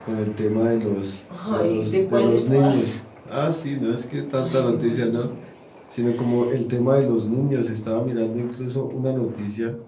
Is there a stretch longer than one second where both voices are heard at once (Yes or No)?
Yes